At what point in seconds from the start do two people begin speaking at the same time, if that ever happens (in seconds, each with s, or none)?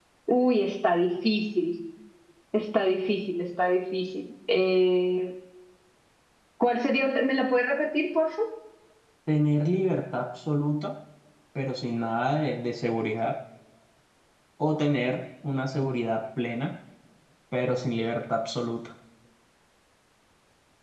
none